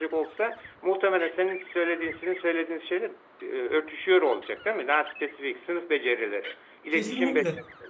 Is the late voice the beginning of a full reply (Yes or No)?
Yes